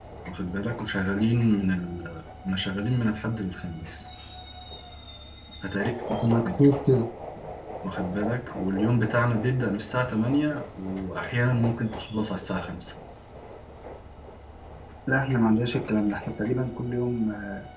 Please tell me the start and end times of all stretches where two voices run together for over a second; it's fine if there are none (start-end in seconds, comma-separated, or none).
none